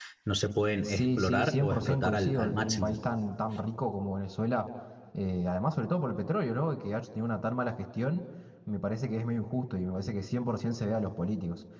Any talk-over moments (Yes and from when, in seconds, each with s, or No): Yes, from 0.8 s